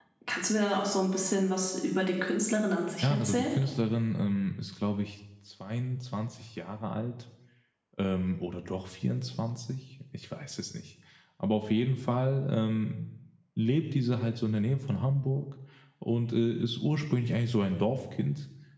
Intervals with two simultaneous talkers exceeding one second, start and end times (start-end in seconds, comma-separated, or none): none